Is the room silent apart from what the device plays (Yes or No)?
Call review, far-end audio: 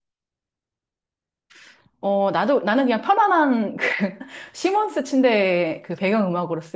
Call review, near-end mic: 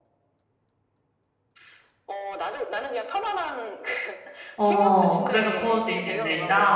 No